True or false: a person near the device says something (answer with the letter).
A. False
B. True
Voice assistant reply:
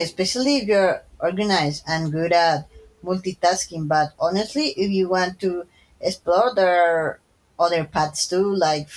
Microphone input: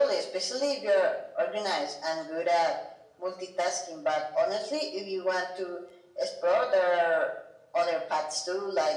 A